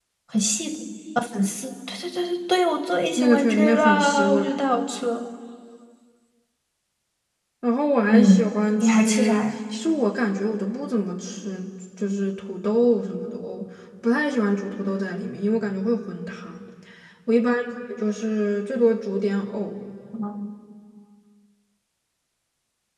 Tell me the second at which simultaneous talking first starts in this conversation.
3.1 s

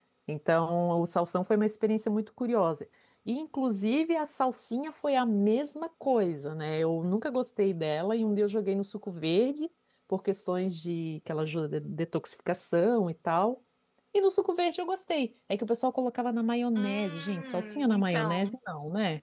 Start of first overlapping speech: 16.8 s

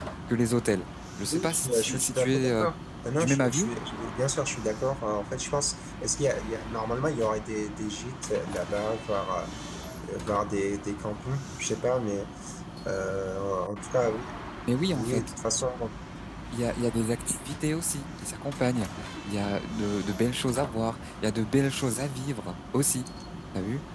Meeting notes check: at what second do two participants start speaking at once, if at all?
1.3 s

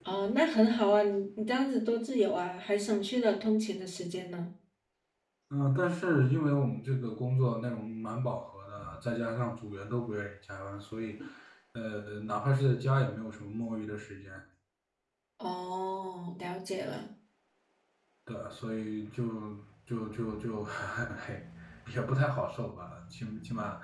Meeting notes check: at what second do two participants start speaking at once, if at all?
none

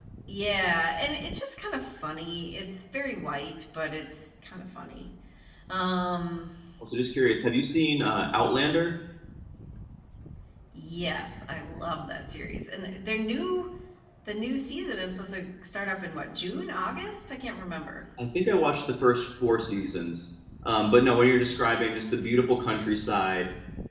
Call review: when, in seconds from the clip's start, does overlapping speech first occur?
none

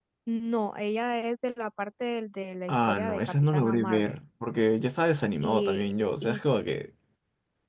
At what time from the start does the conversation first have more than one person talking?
2.7 s

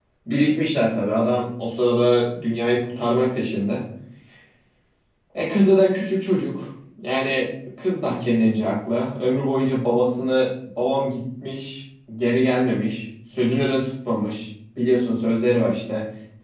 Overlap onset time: none

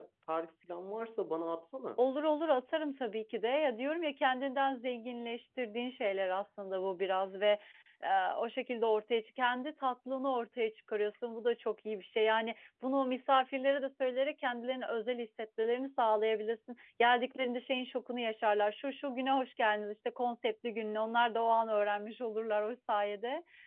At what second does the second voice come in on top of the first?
none

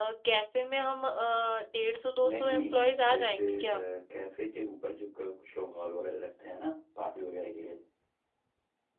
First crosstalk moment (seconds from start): 2.3 s

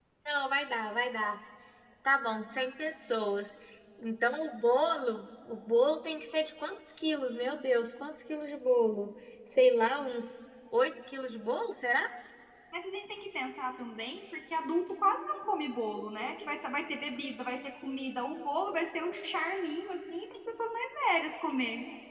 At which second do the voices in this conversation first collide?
none

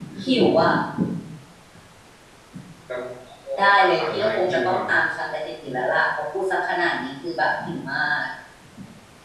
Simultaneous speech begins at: 3.6 s

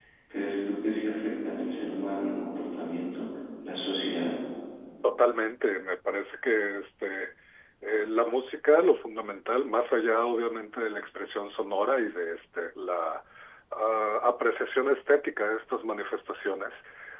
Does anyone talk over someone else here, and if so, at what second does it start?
none

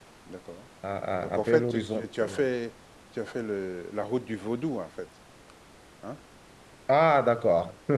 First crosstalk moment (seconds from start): 1.2 s

